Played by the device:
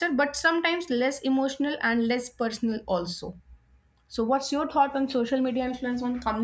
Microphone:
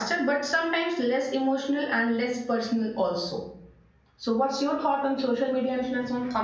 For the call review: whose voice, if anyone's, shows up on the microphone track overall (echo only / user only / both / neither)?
echo only